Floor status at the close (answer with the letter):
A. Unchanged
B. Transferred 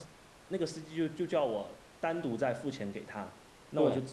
A